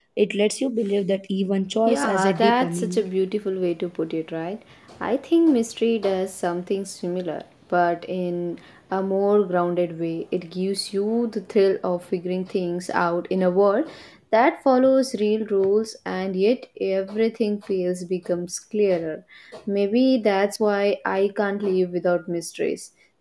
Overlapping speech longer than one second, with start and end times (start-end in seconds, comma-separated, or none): 1.9-3.0